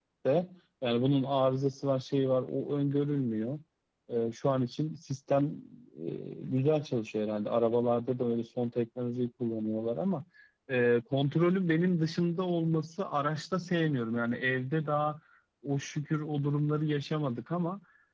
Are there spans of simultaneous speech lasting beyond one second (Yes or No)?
No